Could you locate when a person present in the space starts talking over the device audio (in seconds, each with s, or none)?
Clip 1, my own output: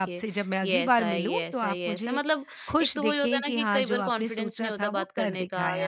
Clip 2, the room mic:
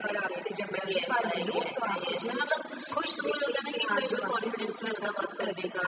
none